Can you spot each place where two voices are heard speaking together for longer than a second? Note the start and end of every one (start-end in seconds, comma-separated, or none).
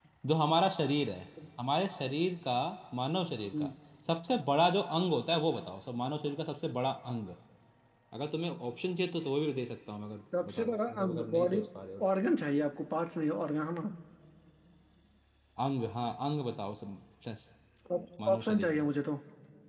10.4-11.6